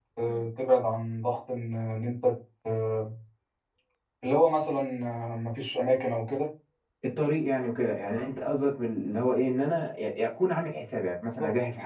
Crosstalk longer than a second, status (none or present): none